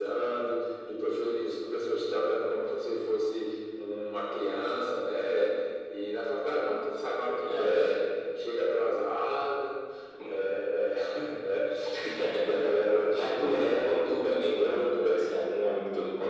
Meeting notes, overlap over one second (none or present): present